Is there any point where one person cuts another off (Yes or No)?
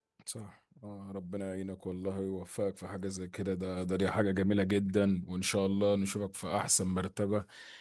No